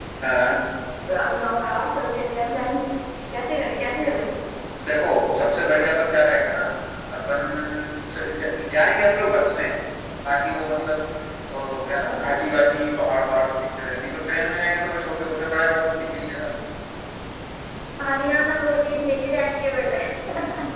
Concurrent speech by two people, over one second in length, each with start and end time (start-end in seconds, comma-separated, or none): none